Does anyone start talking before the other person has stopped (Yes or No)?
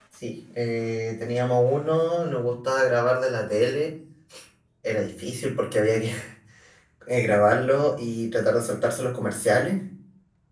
No